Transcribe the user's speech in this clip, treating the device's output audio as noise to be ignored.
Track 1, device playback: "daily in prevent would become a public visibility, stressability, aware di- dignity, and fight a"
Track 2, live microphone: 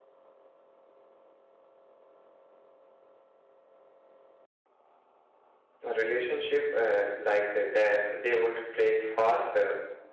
a relationship uh, like uh, they they would break faster

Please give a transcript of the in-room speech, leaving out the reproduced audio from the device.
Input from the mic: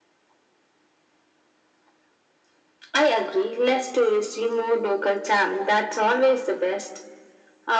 none

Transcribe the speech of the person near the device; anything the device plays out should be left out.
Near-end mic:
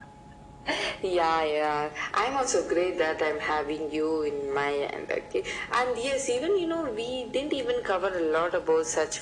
none

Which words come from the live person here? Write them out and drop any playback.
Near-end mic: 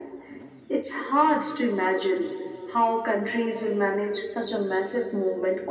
none

